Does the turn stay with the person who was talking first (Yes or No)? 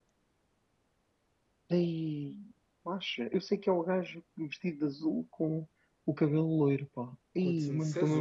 No